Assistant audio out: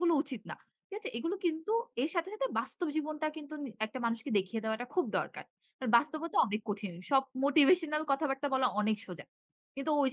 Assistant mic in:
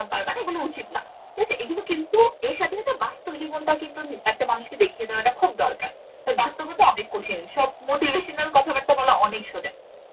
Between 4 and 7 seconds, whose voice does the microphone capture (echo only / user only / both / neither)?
echo only